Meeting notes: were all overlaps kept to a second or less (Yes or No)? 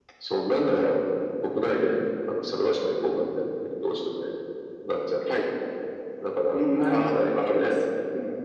No